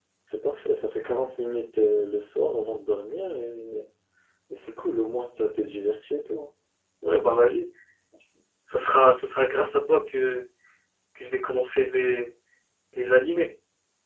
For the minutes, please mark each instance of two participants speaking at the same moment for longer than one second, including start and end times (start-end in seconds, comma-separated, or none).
none